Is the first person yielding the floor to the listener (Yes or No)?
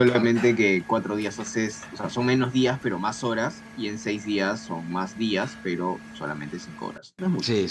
Yes